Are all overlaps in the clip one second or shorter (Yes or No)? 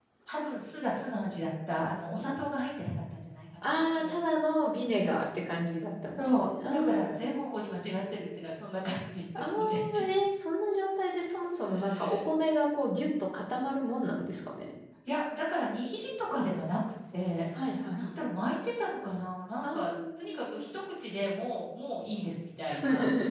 No